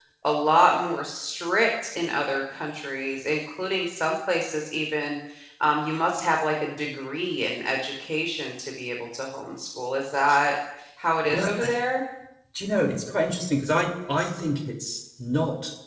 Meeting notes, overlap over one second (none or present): none